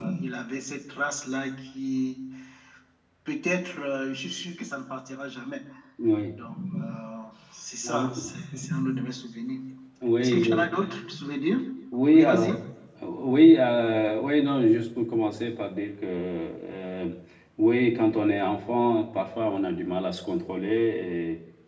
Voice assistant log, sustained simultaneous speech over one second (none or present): none